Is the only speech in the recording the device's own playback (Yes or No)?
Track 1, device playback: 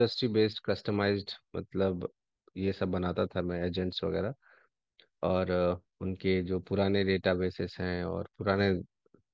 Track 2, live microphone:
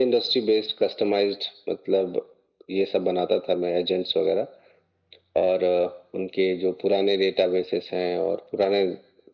Yes